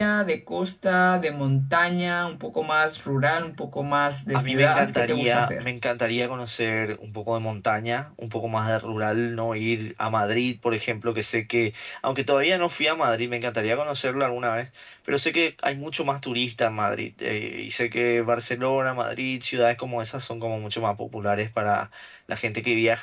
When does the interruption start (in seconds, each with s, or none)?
4.3 s